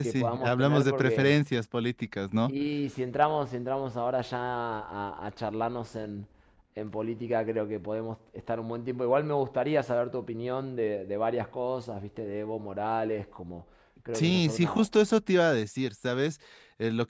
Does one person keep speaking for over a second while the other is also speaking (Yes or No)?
Yes